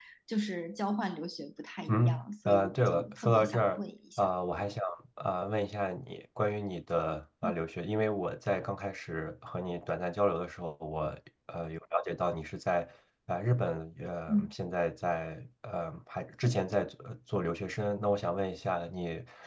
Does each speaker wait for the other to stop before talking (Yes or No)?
No